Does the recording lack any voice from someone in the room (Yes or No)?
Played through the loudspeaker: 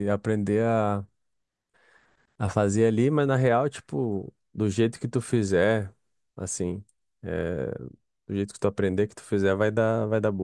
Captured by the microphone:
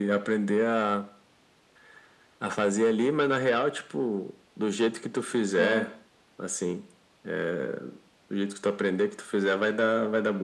No